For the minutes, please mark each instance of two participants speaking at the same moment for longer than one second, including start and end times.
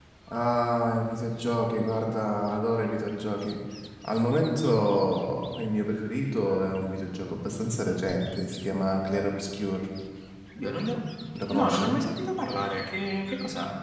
none

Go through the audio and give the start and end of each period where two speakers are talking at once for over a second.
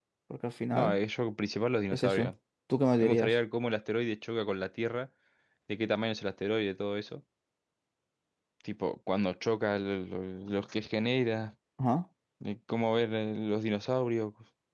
none

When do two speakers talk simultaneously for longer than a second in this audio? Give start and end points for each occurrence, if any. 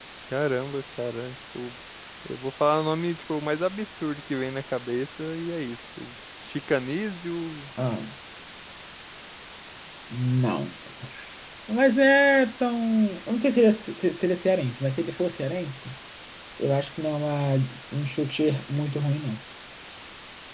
none

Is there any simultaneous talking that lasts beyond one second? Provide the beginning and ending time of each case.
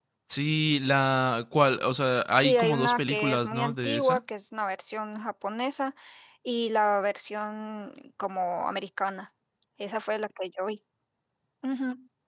2.3-4.2

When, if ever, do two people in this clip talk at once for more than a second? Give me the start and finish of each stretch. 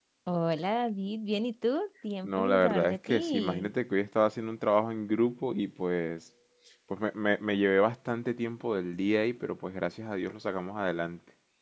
2.2-3.8

